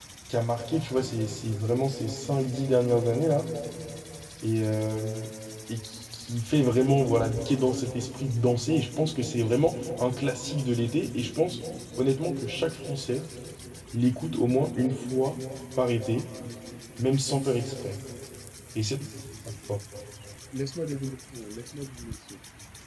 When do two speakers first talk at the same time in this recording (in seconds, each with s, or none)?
none